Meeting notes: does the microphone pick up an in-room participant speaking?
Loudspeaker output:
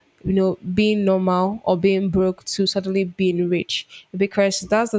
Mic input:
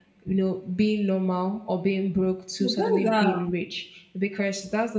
Yes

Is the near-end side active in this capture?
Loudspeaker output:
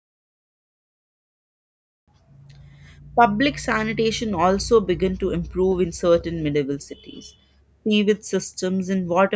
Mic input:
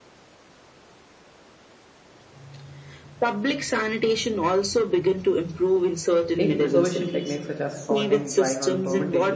Yes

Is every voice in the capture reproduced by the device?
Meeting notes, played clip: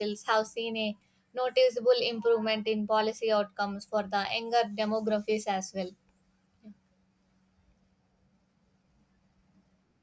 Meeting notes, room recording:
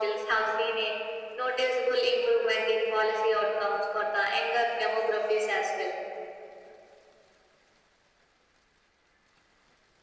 Yes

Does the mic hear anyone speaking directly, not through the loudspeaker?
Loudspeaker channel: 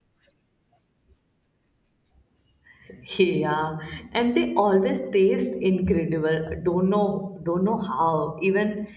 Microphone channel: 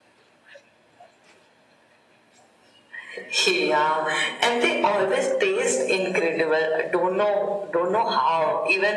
No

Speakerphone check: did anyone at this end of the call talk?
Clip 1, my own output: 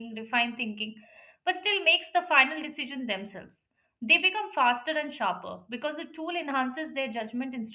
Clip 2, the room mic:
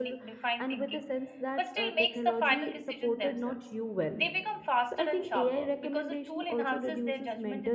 Yes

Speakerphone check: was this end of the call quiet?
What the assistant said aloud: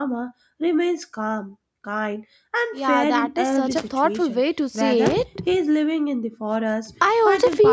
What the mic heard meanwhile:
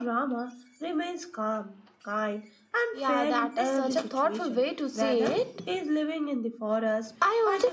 Yes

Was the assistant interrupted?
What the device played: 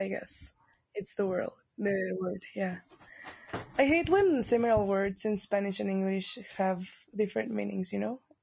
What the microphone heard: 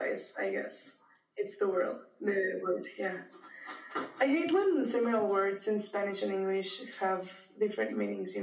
No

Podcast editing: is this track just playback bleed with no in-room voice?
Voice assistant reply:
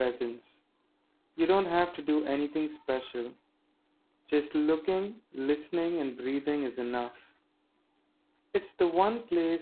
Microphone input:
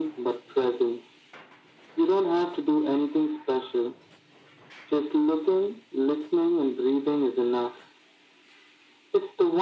Yes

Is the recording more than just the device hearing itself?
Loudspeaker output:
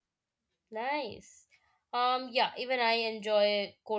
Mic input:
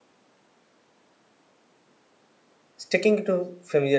Yes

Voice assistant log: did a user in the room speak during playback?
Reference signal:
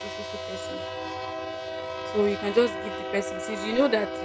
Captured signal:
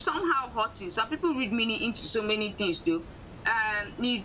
Yes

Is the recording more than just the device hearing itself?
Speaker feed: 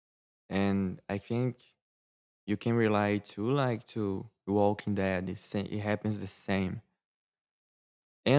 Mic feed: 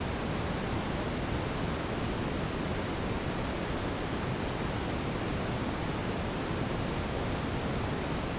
No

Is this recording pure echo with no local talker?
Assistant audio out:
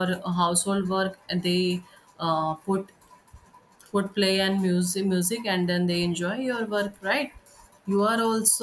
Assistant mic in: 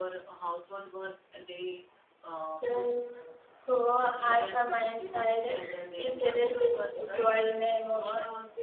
No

